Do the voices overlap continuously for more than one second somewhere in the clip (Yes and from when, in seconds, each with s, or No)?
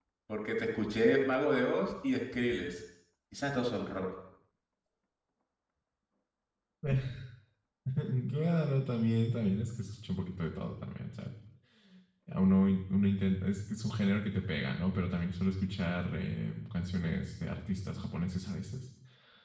No